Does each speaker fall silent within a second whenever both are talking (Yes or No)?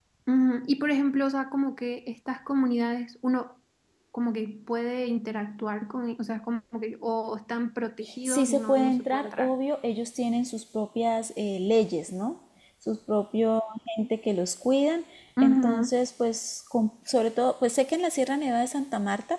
No